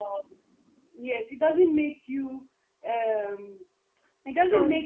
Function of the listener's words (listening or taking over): listening